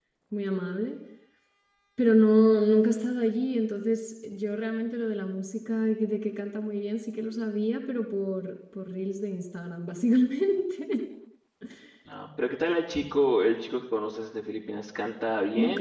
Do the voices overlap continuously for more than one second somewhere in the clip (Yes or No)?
No